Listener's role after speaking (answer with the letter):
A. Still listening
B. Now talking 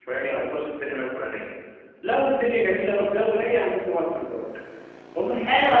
B